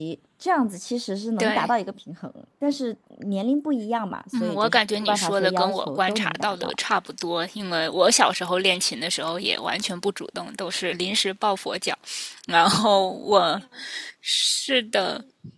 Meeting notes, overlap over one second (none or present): present